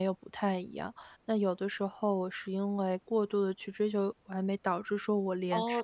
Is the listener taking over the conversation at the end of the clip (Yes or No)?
Yes